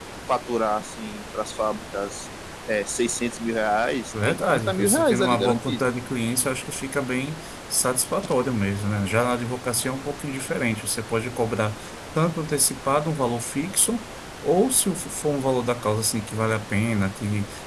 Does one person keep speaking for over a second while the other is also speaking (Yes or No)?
Yes